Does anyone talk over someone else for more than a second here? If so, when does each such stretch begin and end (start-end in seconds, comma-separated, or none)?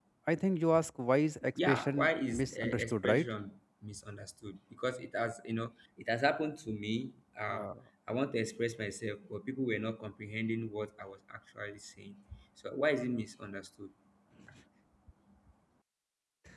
1.6-3.2